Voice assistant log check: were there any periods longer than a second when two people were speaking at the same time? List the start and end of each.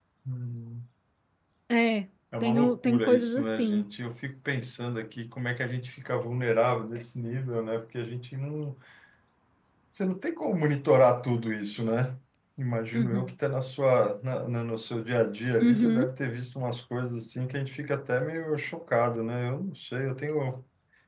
2.4-3.8

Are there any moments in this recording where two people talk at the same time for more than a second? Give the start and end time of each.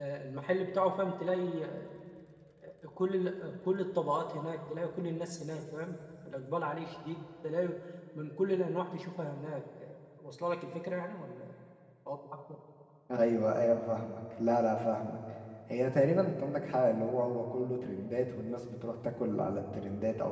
none

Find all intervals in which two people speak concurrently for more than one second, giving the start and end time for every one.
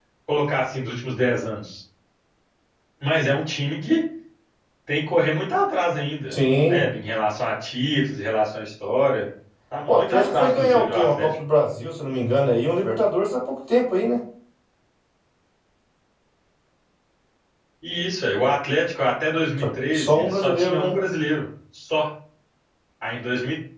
9.9-11.4, 19.6-20.9

